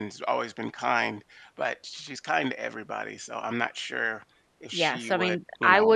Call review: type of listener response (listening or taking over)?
taking over